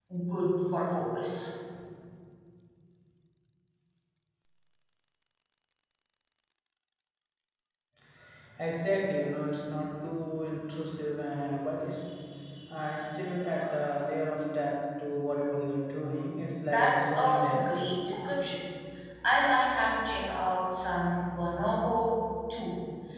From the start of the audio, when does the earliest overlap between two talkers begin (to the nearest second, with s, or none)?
17 s